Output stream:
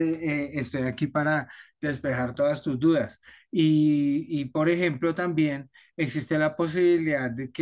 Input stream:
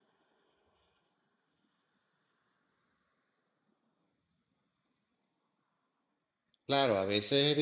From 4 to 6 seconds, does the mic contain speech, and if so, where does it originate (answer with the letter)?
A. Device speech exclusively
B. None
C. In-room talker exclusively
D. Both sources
B